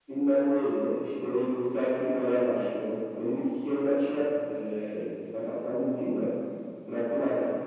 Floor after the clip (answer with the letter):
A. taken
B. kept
B